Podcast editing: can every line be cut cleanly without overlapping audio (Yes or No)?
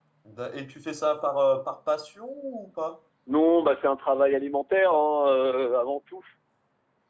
Yes